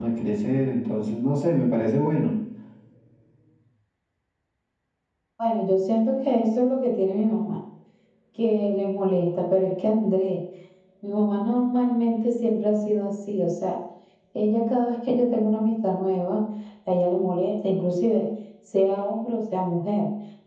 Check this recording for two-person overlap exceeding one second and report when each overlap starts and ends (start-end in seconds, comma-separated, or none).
none